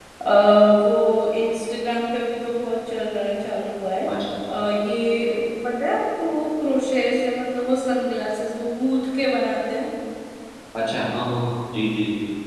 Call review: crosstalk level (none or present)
none